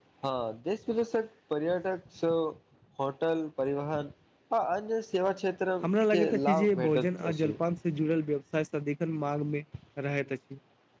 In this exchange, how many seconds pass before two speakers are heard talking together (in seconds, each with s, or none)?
5.8 s